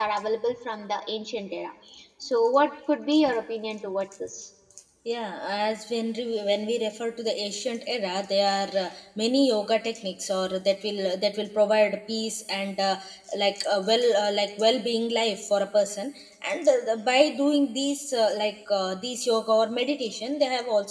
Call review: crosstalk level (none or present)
none